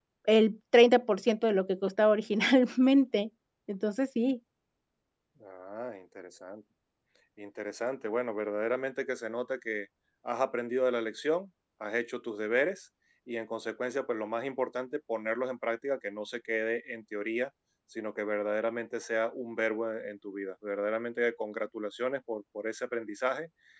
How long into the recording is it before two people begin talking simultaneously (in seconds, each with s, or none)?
none